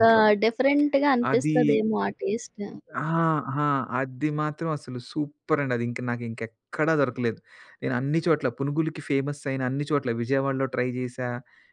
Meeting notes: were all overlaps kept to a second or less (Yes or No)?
Yes